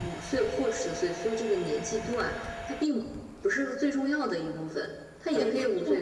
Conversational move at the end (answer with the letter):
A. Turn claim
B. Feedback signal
A